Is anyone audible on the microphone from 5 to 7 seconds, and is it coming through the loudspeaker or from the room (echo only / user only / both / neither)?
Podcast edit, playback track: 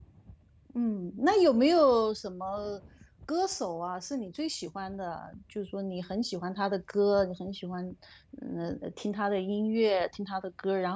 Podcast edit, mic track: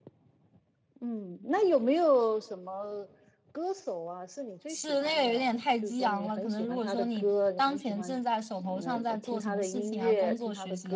both